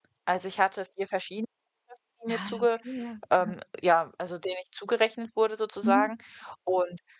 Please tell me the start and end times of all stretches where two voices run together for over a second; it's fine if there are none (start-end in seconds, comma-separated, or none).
none